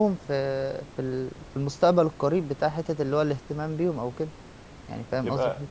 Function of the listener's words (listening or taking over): taking over